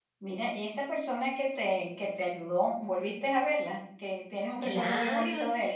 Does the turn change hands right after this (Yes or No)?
Yes